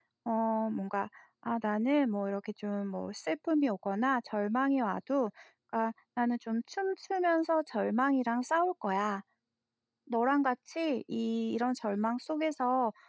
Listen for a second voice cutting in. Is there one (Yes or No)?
No